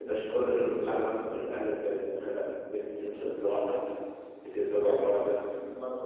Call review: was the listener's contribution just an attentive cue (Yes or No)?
No